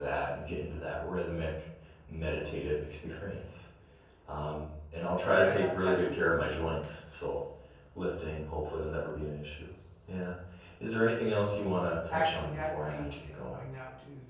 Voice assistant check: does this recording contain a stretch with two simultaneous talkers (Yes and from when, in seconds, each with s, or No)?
Yes, from 5.3 s